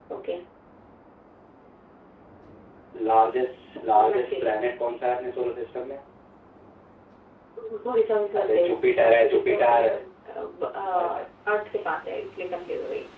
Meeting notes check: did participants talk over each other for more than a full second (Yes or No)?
Yes